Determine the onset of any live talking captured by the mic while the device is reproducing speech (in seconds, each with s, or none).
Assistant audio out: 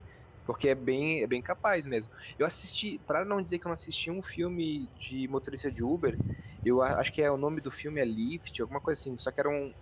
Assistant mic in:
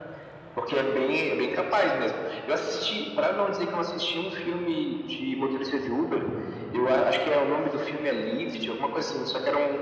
none